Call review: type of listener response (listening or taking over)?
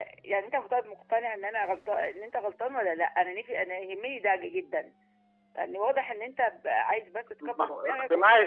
taking over